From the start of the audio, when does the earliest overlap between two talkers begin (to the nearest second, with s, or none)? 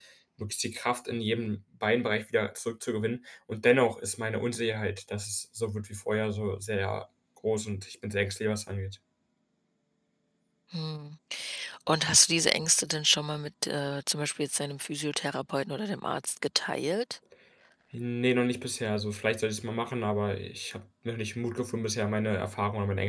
none